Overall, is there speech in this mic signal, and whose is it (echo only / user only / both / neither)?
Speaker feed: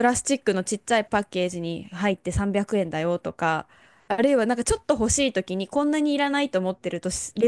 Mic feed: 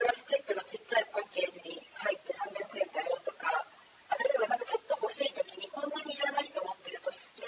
echo only